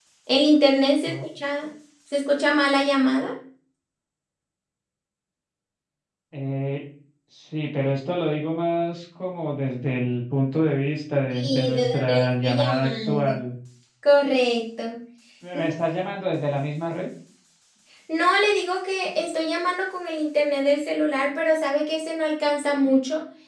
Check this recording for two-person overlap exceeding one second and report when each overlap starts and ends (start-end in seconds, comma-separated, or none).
11.3-13.3